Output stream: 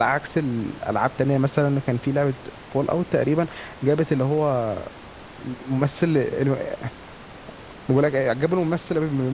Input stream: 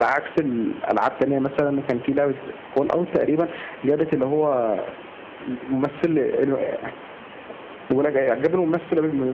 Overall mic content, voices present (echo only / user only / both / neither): echo only